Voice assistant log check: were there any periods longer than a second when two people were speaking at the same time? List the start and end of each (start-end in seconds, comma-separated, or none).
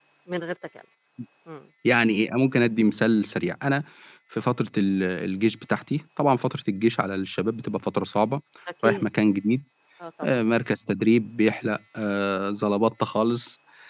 none